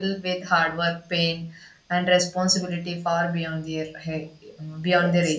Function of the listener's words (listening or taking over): listening